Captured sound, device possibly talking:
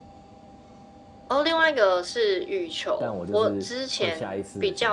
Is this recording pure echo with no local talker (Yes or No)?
No